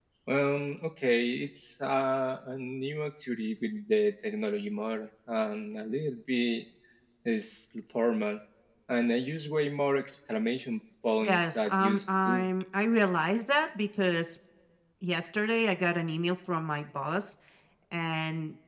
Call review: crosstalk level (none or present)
present